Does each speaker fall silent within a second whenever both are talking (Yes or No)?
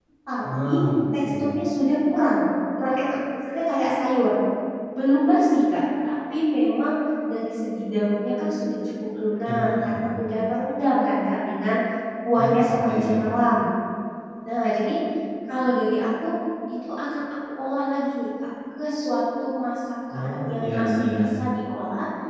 No